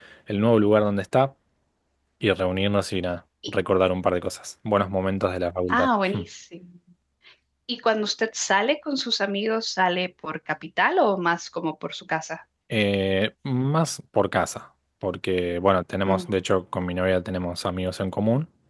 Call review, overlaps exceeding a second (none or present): none